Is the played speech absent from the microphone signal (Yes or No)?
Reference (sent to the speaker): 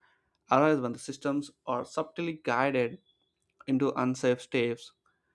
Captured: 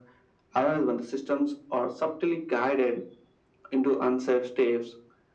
No